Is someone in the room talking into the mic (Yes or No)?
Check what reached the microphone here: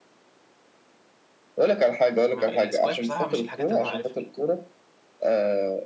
Yes